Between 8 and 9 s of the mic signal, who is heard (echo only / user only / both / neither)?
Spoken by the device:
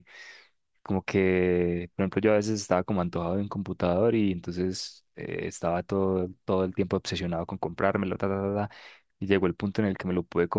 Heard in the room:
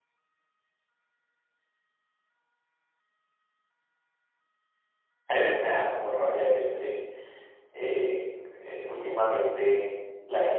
user only